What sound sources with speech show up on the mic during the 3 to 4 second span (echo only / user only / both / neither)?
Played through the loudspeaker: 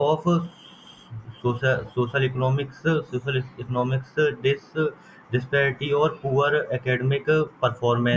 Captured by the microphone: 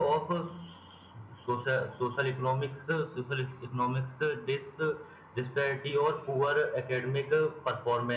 echo only